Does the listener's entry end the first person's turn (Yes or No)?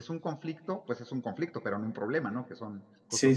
Yes